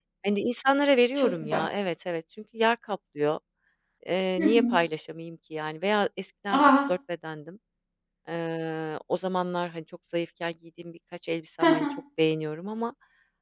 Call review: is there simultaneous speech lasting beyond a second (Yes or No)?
No